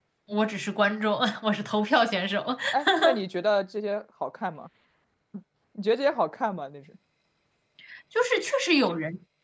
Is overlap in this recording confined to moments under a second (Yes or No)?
Yes